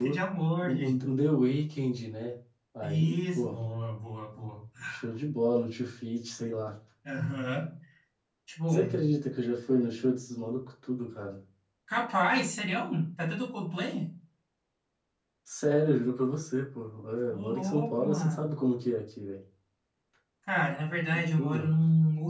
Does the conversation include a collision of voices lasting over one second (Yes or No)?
Yes